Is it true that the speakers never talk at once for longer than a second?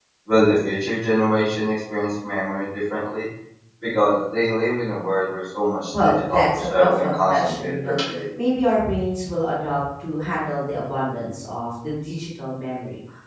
No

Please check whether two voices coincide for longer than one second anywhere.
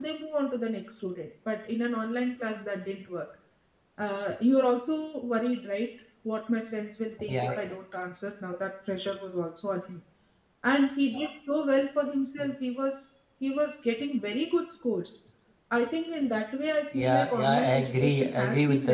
Yes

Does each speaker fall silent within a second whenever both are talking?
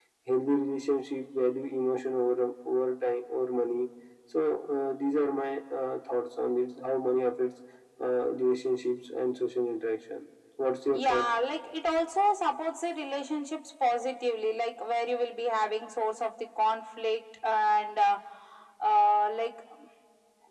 Yes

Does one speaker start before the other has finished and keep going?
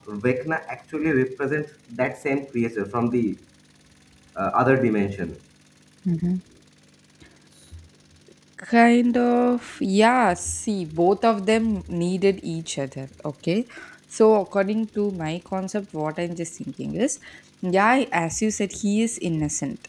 No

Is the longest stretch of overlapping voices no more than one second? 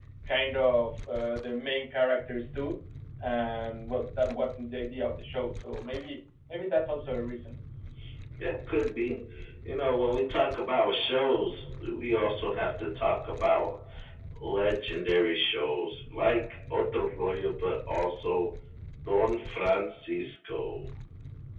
Yes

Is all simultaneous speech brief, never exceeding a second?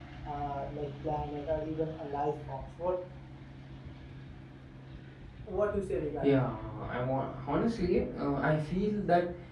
Yes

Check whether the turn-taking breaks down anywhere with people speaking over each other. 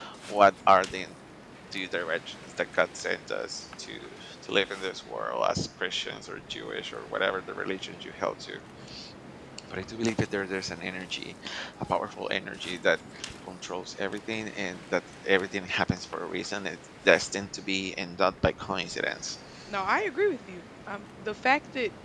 No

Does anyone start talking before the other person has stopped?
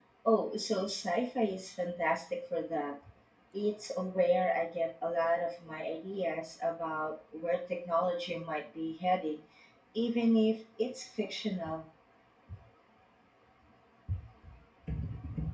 No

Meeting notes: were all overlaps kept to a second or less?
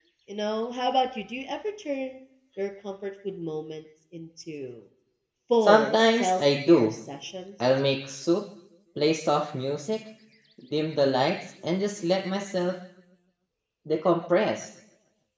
No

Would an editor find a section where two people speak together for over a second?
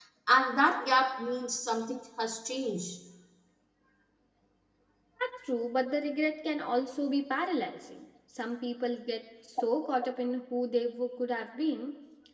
No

